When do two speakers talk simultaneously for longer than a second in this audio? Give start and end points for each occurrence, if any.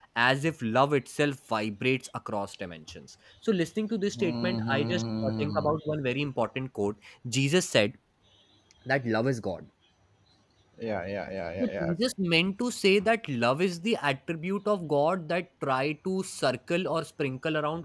4.2-5.7

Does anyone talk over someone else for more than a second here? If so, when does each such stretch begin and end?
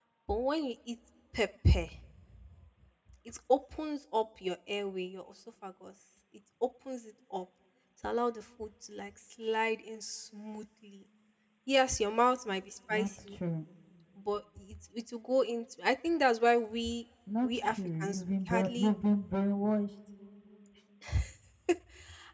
17.4-18.9

